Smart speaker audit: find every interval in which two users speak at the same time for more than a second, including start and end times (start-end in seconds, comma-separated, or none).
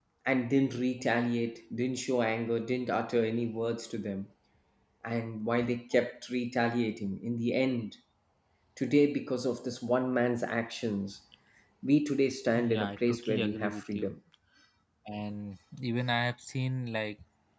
12.6-14.1